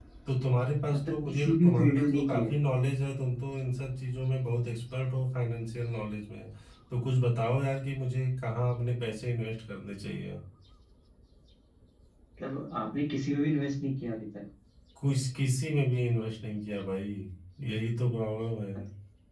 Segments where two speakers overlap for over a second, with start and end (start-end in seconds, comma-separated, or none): 1.1-2.5